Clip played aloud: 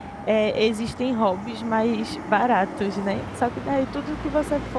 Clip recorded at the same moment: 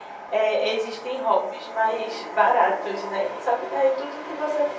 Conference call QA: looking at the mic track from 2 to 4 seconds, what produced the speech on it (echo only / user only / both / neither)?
echo only